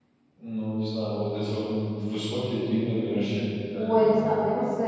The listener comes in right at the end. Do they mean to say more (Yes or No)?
Yes